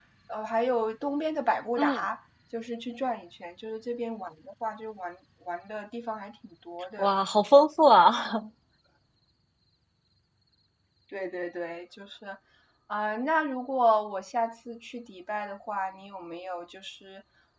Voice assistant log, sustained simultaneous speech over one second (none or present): none